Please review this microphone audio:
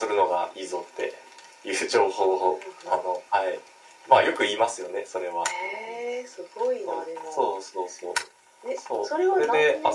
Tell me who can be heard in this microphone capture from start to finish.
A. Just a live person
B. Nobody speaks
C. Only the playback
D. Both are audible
C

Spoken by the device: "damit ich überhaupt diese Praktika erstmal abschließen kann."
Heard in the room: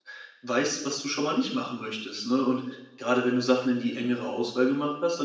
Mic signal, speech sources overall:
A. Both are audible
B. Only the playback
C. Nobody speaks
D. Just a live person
D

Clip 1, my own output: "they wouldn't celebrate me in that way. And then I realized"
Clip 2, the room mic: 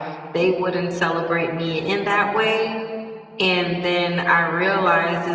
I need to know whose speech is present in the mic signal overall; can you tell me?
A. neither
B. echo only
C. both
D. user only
B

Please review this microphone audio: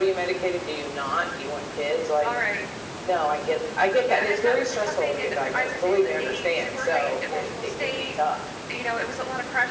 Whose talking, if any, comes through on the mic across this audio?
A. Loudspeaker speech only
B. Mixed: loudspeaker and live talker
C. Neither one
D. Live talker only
A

